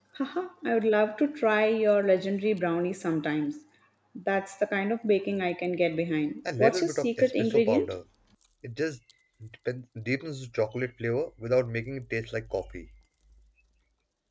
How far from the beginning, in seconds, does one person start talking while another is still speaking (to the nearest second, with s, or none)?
6 s